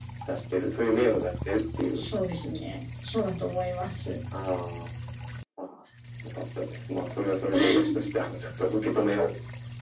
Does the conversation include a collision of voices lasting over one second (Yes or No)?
No